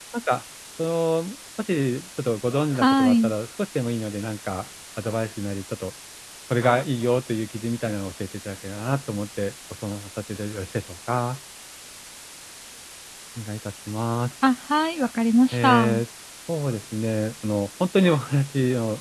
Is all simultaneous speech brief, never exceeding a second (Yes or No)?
Yes